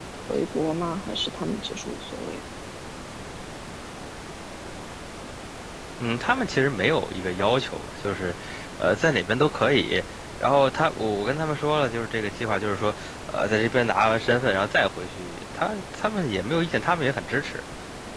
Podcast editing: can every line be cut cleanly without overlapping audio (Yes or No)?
Yes